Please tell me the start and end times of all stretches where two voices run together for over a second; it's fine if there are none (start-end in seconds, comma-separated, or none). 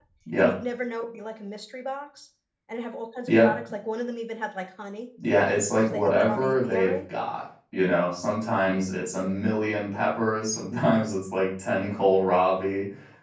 5.7-6.9